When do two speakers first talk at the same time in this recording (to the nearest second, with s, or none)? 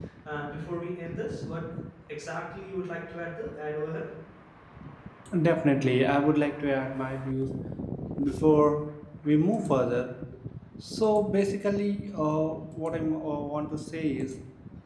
none